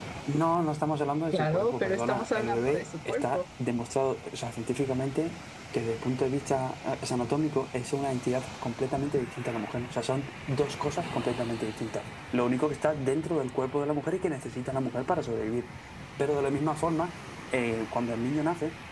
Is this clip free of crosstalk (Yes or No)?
No